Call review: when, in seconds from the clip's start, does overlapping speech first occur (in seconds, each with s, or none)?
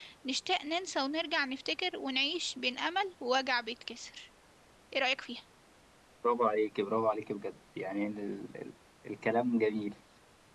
none